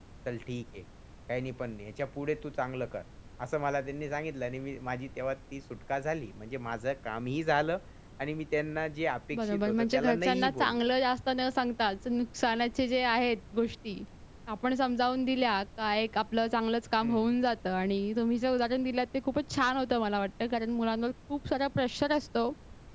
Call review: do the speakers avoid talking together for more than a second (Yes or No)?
No